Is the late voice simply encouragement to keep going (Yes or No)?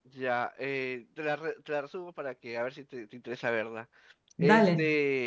Yes